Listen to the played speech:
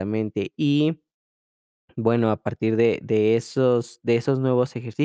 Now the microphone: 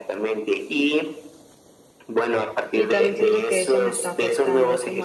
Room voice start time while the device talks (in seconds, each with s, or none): 2.7 s